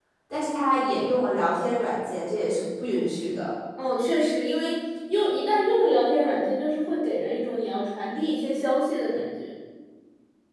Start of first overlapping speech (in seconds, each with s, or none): none